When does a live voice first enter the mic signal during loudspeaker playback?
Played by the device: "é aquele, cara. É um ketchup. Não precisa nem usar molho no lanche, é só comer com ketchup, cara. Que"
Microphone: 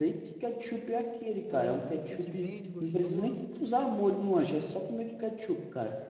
1.5 s

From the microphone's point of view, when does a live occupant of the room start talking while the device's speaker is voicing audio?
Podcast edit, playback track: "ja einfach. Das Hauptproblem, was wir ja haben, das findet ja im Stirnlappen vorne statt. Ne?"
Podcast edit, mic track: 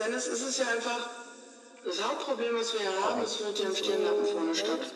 3.0 s

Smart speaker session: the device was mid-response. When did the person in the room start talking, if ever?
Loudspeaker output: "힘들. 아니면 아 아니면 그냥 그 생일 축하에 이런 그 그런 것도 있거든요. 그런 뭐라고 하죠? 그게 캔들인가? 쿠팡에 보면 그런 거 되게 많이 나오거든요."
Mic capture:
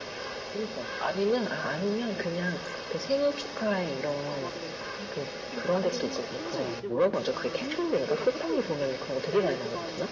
4.2 s

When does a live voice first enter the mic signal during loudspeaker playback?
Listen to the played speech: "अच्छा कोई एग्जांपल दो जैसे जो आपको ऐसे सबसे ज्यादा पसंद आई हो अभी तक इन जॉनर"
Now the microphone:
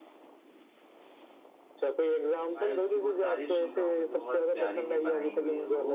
2.6 s

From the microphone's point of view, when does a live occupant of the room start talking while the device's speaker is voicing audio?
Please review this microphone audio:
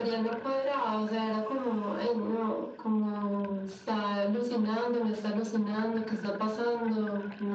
none

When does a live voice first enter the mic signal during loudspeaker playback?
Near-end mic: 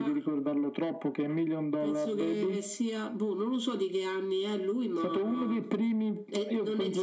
none

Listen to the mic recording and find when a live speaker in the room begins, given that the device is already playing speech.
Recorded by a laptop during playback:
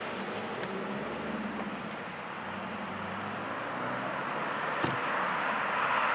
none

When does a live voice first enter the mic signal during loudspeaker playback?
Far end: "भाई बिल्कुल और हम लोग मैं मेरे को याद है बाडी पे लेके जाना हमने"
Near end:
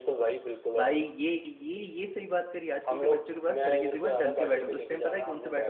0.7 s

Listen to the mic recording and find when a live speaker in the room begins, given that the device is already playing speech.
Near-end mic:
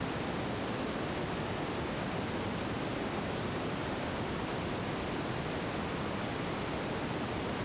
none

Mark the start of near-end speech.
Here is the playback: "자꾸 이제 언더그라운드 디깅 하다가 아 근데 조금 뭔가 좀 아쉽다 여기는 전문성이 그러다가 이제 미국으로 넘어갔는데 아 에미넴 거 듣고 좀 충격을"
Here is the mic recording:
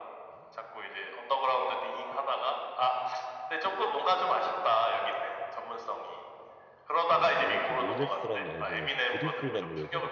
7.1 s

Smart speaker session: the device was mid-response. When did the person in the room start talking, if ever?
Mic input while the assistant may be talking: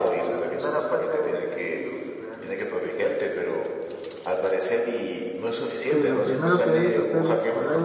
5.9 s

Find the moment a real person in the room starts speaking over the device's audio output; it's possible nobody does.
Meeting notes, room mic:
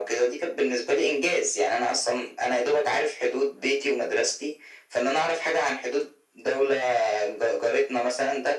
none

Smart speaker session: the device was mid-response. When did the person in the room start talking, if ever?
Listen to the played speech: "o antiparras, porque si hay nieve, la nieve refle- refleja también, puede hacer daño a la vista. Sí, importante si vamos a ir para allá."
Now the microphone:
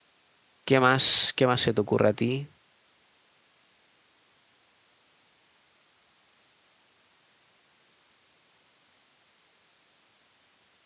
0.6 s

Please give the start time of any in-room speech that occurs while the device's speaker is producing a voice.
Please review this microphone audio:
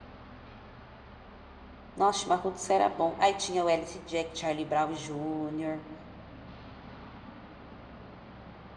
2.0 s

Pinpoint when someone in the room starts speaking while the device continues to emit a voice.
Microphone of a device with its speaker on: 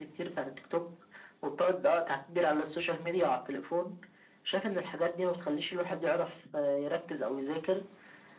none

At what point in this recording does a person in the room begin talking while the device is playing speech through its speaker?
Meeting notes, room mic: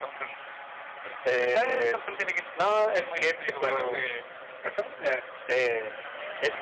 3.6 s

